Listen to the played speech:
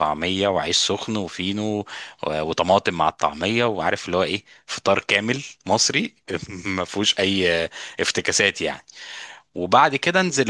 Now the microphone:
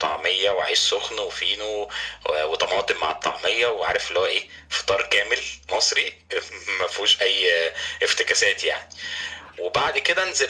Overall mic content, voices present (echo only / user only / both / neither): echo only